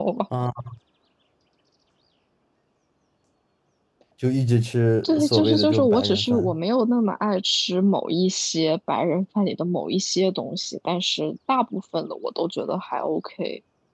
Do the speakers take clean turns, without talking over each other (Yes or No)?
No